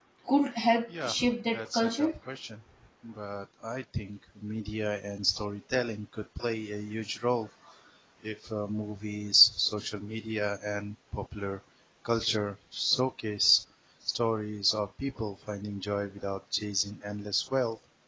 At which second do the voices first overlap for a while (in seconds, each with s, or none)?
0.9 s